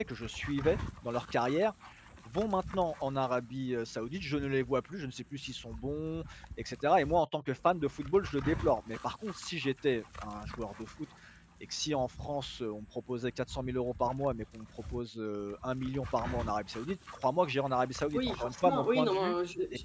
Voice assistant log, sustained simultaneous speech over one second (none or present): present